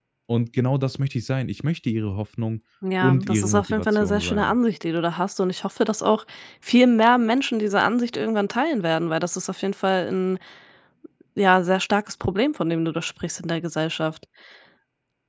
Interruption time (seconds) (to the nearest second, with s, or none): 3 s